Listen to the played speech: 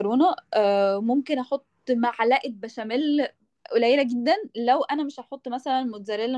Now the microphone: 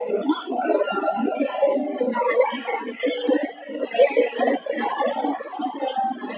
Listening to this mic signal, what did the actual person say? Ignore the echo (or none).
none